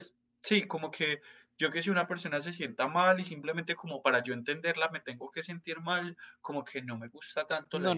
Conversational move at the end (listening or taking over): taking over